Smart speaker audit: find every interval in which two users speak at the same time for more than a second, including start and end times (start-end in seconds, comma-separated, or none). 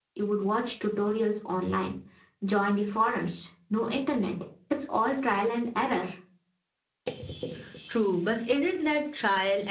none